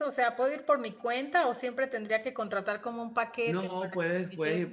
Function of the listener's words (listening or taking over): taking over